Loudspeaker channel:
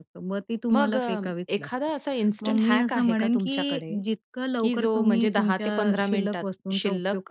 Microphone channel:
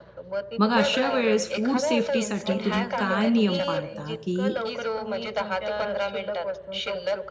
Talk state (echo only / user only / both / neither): both